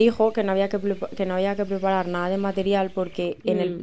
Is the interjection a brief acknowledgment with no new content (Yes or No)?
Yes